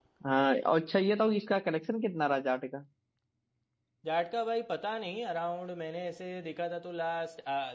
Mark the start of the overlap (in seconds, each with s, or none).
none